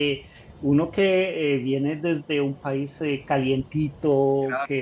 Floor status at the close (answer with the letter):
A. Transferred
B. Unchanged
B